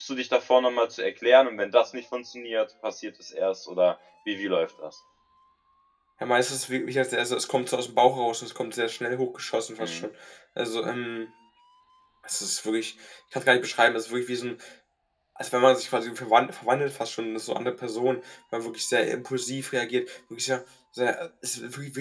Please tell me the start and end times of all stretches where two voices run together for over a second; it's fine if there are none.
none

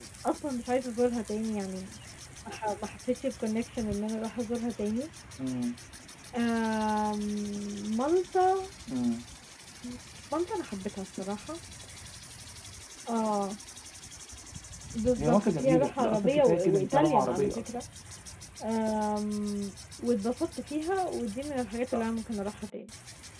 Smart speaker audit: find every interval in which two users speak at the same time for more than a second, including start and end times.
15.2-17.7

